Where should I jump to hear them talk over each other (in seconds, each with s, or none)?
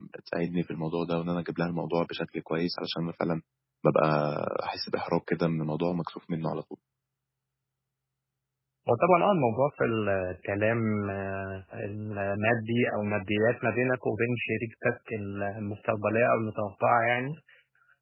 none